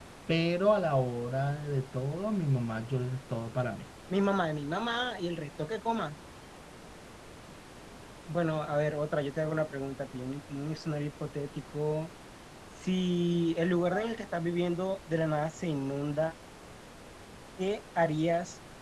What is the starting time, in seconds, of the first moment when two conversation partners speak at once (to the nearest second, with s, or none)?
none